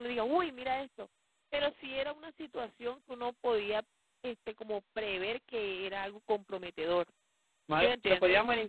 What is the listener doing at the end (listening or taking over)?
taking over